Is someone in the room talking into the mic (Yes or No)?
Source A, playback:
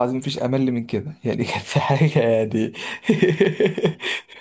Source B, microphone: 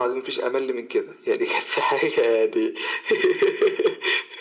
No